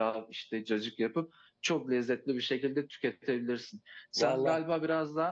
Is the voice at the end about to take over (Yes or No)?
No